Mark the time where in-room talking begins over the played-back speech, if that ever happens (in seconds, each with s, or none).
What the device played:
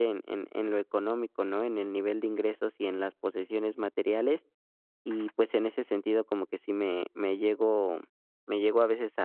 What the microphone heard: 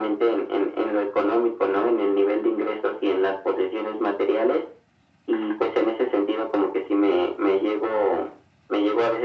none